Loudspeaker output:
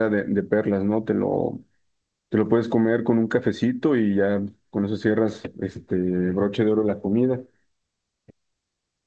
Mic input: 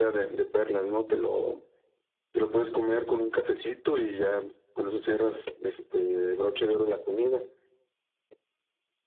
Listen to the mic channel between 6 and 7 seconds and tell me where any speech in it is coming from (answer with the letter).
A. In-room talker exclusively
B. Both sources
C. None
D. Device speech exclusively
D